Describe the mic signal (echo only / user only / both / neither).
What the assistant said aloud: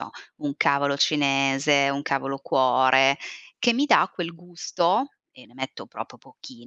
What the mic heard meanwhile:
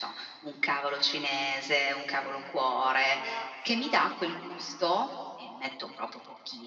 both